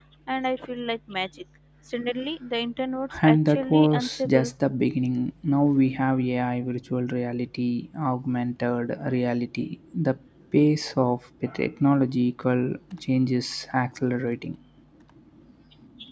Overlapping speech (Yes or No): Yes